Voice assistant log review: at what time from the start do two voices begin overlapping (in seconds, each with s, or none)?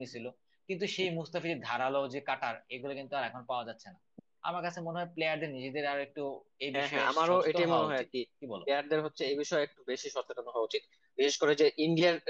6.7 s